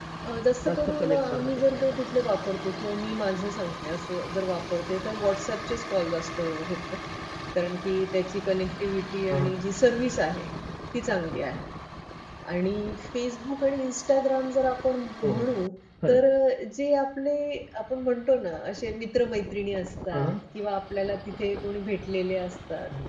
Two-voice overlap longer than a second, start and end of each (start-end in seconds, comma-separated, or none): 0.7-2.1